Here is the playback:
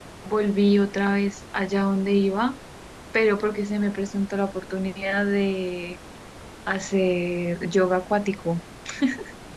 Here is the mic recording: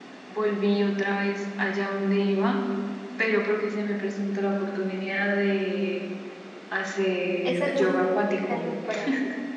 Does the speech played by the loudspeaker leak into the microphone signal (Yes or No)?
Yes